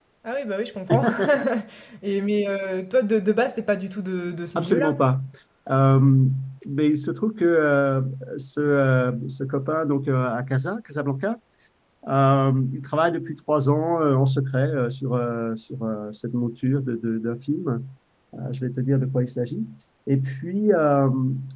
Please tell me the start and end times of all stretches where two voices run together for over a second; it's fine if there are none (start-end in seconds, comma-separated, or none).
none